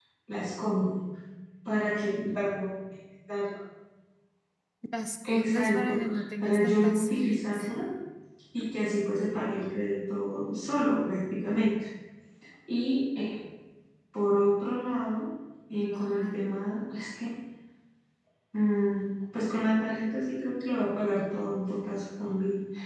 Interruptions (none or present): present